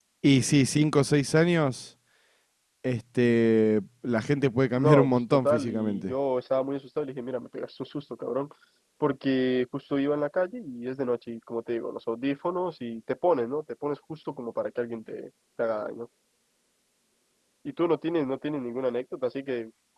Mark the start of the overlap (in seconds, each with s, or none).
4.8 s